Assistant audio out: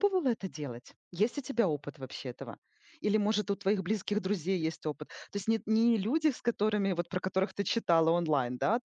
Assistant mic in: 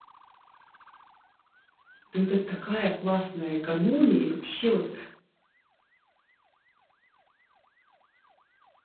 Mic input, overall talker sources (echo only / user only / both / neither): user only